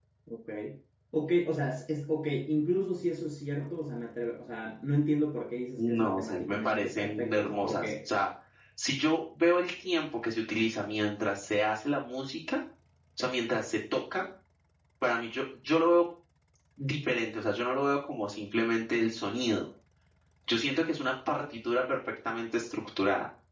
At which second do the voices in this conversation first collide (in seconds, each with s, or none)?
5.8 s